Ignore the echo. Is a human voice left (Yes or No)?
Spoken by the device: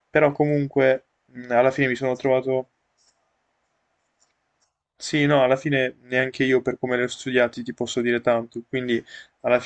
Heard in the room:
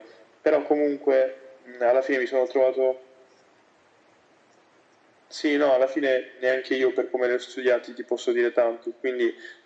No